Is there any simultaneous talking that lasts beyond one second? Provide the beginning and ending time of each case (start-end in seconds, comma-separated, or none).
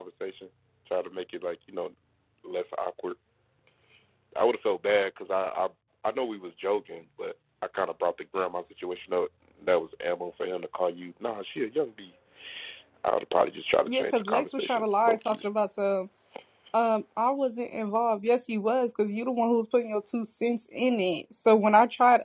13.8-15.4